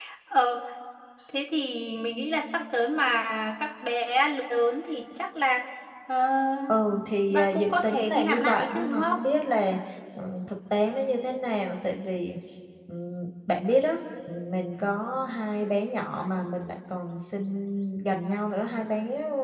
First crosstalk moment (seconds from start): 7.3 s

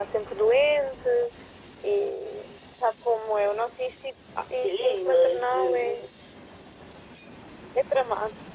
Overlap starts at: 4.4 s

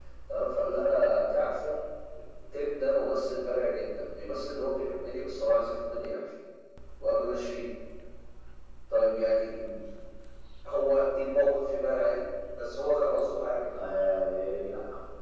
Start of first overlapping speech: none

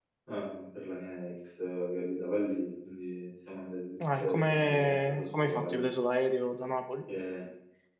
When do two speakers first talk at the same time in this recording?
4.0 s

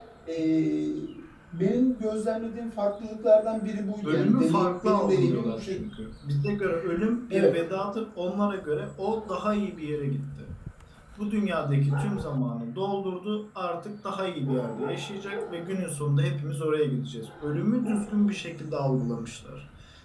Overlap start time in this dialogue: 4.0 s

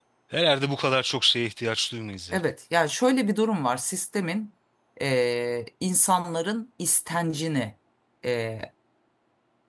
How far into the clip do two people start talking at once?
none

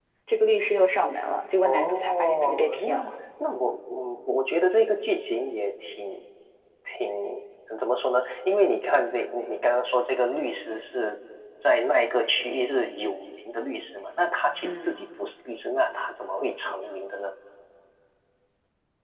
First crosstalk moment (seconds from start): 1.6 s

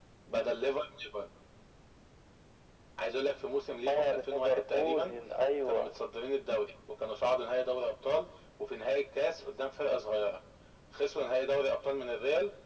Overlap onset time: 3.9 s

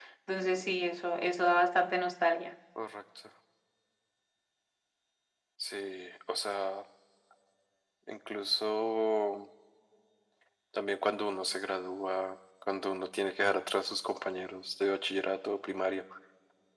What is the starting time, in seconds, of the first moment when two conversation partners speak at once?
none

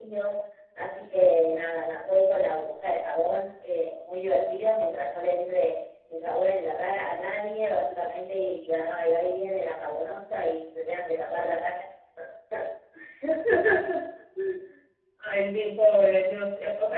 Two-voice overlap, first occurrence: none

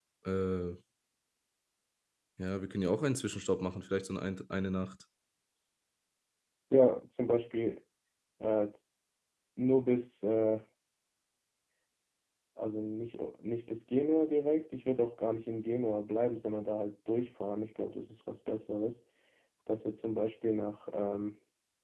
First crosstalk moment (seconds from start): none

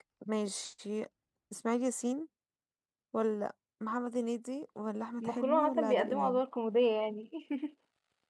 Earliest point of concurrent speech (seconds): 5.2 s

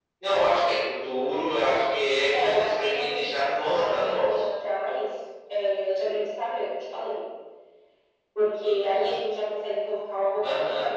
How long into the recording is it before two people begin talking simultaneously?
2.3 s

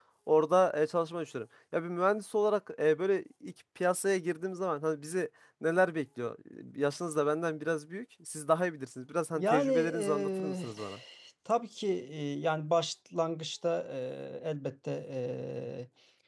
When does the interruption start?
9.3 s

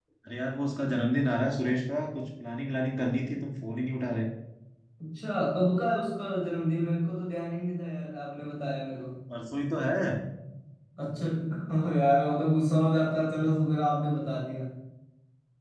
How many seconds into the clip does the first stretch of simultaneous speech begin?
none

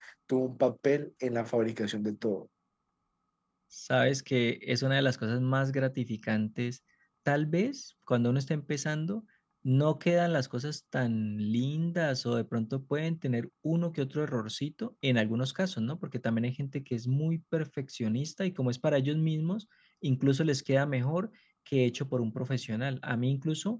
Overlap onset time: none

